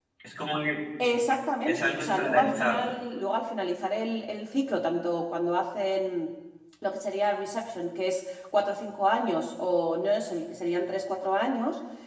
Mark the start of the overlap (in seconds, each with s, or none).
1.6 s